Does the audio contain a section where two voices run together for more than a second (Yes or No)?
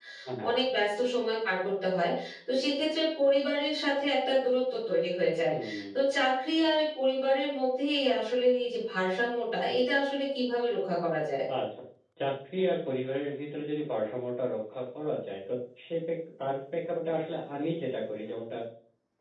No